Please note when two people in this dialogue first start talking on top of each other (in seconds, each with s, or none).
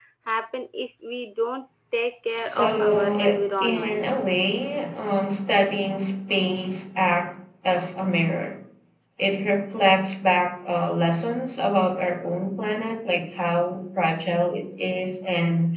2.3 s